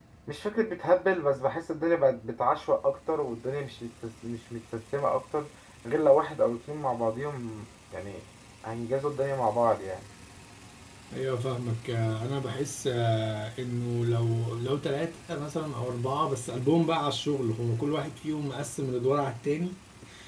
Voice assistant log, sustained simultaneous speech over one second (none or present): none